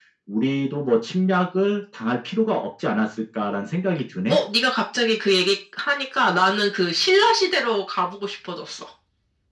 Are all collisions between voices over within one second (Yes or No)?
Yes